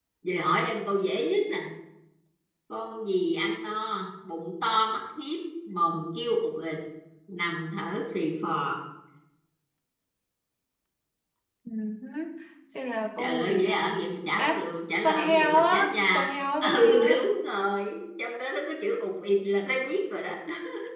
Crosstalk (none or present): present